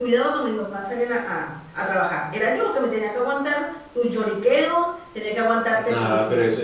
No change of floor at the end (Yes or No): No